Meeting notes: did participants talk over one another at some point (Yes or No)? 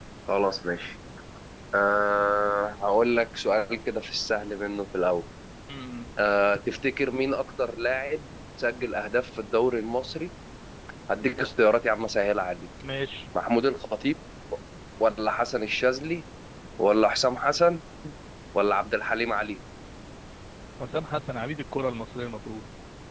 No